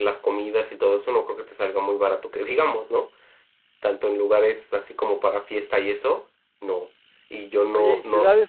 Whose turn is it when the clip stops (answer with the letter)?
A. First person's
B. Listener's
B